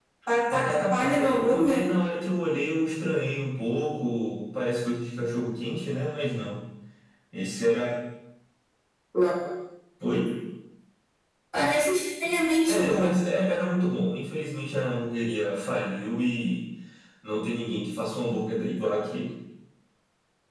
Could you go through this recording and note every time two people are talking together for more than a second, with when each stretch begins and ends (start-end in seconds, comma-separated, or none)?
0.5-1.8